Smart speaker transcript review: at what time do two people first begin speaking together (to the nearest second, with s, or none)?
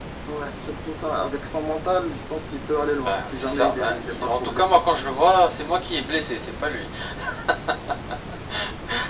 3 s